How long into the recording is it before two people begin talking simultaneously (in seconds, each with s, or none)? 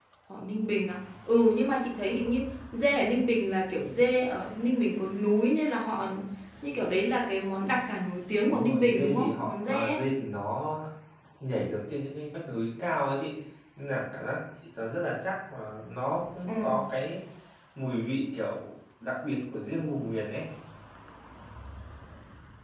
8.4 s